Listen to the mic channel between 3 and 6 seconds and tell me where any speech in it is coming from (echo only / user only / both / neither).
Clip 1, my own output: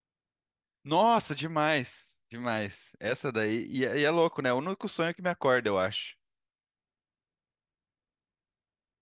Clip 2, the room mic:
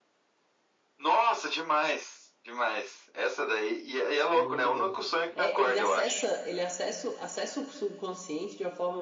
both